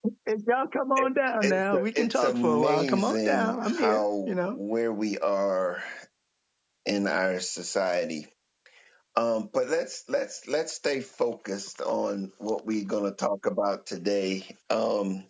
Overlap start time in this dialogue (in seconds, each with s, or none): 1.4 s